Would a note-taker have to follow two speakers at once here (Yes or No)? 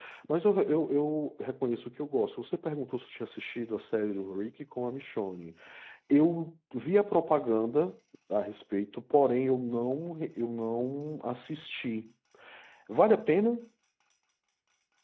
No